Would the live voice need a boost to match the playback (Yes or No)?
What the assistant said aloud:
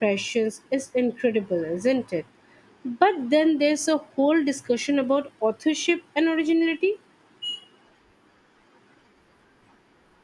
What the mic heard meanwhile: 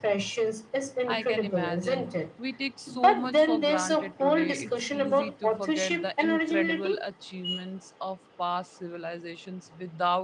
Yes